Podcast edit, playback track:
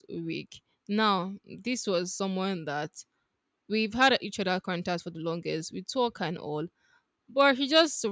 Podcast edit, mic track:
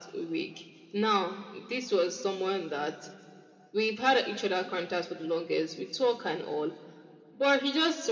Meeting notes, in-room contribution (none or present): none